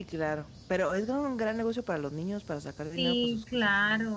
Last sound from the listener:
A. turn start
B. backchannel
A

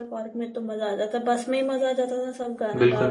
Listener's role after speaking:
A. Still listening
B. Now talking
B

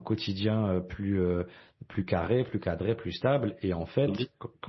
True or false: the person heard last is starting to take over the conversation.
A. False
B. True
A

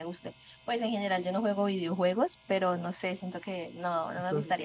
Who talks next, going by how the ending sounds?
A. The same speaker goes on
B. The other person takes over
B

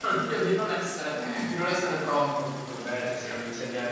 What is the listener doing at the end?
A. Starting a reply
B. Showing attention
A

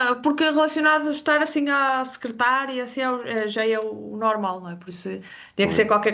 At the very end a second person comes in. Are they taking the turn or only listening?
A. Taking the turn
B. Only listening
B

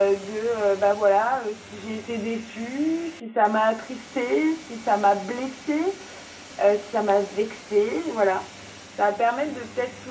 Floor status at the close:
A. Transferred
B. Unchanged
B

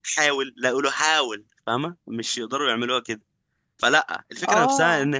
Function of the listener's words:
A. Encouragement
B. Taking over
A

